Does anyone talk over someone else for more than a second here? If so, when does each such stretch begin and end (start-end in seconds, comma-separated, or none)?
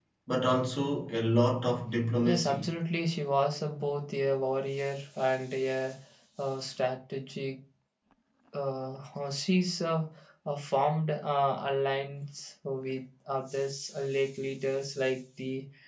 none